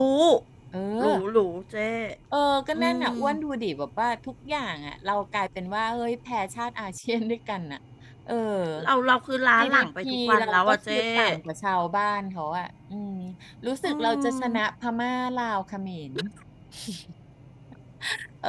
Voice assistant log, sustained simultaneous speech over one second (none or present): present